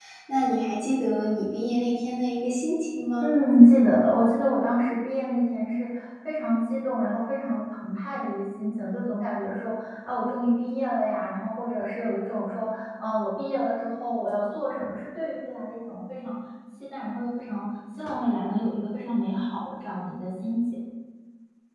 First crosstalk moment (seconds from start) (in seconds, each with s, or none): none